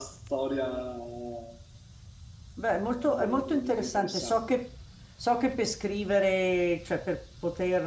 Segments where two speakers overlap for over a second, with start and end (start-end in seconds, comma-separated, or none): 2.9-4.6